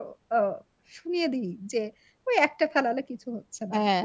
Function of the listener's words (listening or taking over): taking over